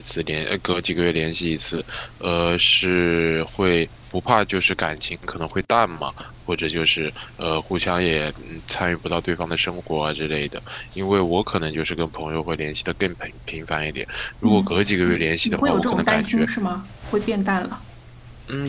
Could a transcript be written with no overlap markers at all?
No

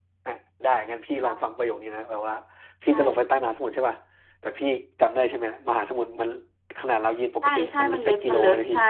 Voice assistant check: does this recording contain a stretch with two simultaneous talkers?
Yes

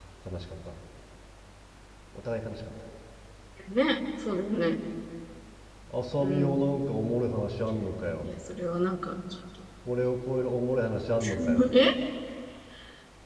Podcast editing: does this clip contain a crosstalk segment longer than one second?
No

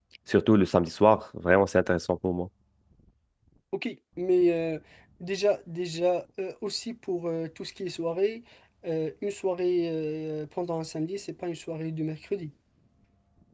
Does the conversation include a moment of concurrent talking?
No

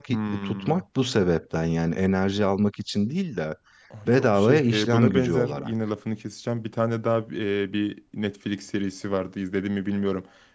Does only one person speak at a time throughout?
No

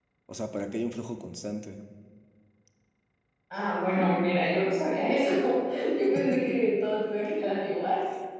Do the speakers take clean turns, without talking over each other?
Yes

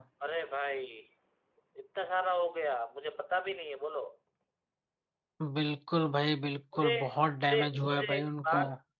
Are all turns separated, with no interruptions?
No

